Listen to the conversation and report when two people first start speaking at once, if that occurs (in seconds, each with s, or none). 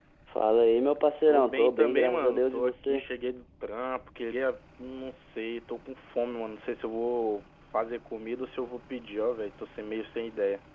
1.3 s